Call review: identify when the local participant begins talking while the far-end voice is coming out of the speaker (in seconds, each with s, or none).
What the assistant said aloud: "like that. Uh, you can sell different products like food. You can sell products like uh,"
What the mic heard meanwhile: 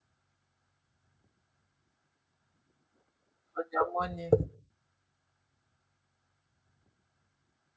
3.5 s